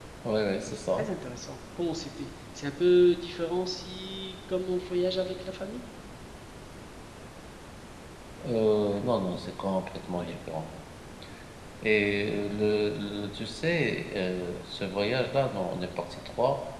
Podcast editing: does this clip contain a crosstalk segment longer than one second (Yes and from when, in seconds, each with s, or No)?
No